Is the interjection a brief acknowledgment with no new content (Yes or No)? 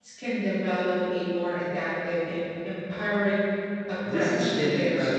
No